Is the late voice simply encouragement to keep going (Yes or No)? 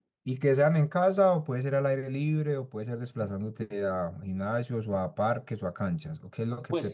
No